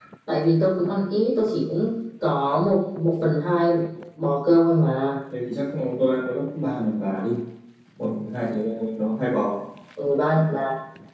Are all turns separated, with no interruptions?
Yes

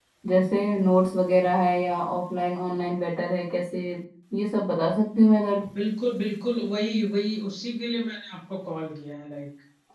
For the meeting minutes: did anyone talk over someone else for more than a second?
No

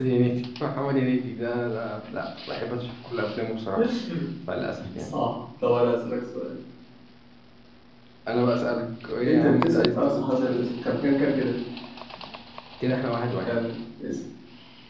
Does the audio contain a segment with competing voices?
Yes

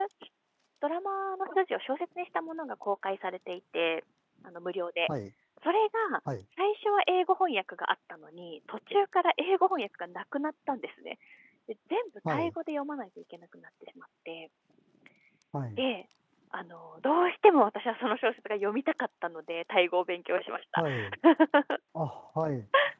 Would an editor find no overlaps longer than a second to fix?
Yes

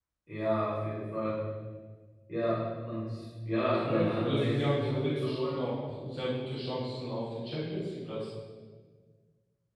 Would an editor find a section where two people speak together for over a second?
Yes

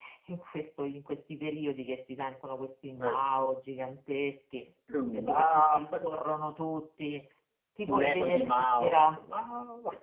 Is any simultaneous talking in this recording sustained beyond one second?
Yes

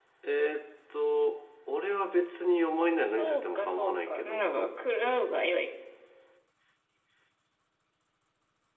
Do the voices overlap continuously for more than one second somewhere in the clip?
Yes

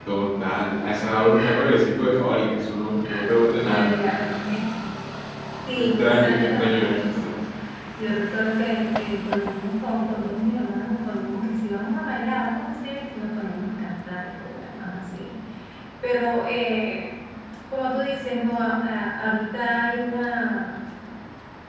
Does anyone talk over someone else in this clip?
Yes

